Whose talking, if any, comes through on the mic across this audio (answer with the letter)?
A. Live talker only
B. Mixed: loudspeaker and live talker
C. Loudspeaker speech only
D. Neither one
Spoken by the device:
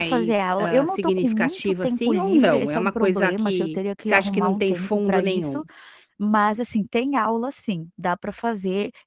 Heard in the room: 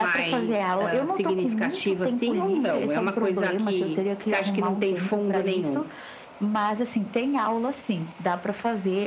C